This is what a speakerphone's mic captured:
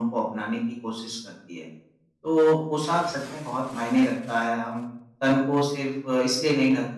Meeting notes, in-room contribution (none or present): none